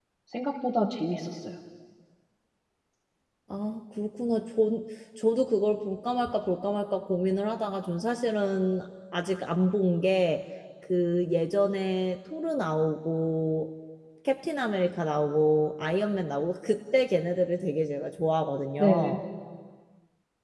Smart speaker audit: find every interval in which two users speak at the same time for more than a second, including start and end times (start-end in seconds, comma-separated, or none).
none